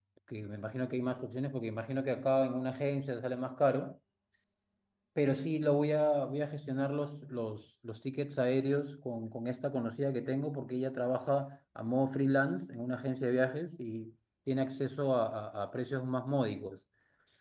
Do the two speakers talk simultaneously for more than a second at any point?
No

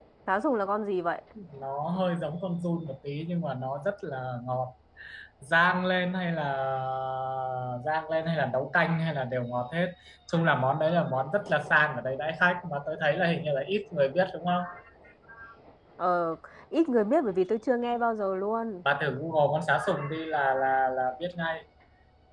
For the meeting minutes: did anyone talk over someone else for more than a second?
No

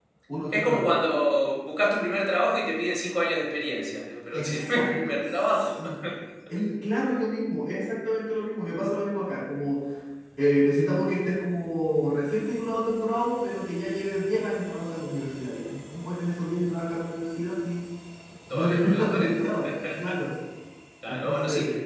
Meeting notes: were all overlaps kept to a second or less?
No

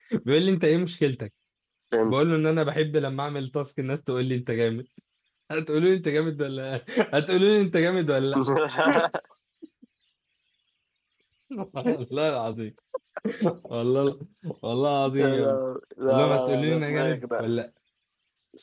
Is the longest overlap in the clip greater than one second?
Yes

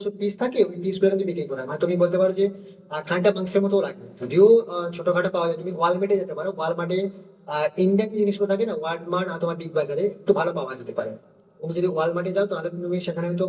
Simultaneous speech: No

